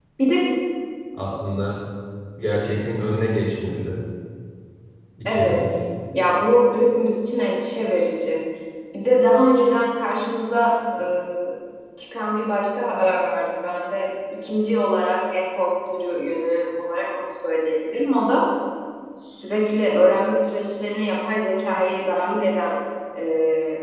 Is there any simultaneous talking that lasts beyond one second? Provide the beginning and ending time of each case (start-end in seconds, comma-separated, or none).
none